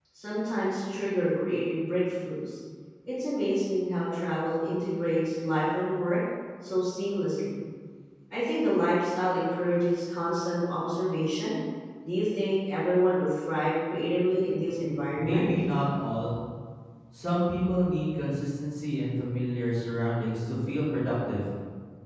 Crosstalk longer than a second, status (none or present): none